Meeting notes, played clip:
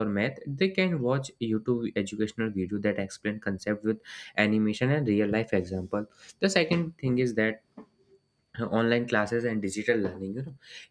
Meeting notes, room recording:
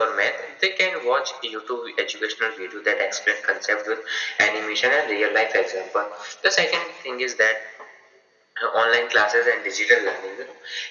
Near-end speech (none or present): none